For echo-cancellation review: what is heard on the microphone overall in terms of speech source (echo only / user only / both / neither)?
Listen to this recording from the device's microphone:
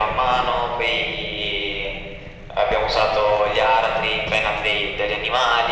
echo only